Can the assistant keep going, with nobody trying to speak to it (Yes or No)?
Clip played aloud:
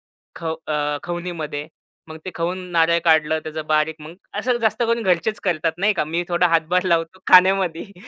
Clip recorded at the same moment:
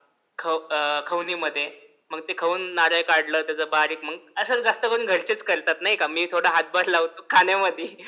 Yes